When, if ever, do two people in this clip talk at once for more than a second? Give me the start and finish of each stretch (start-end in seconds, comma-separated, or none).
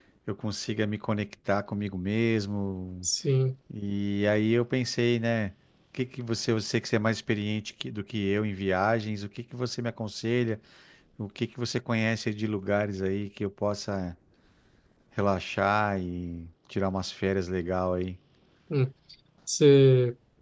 none